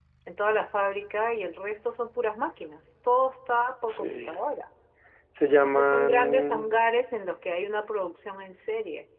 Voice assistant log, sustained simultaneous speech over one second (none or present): present